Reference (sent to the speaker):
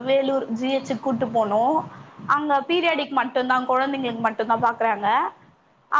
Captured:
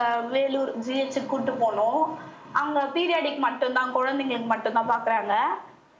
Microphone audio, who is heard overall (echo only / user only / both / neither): echo only